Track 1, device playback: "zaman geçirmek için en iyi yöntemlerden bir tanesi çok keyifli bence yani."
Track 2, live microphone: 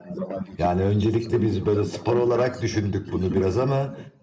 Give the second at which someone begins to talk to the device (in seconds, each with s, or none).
0.6 s